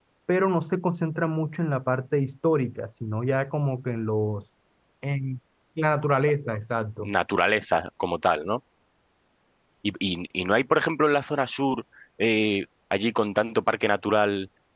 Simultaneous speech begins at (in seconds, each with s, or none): none